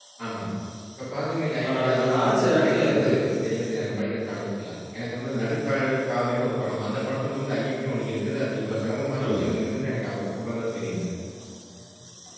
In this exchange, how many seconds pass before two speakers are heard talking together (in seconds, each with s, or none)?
1.7 s